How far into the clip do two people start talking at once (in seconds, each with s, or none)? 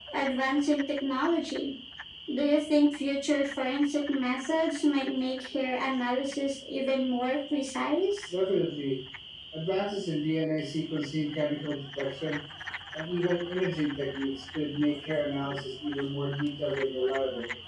none